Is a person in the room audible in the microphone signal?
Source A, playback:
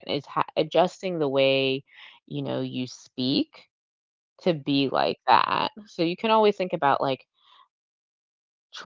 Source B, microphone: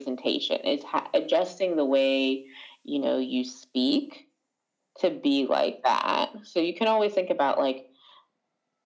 No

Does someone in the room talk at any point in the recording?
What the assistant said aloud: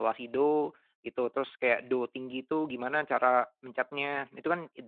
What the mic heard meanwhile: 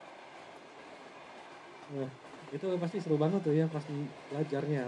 Yes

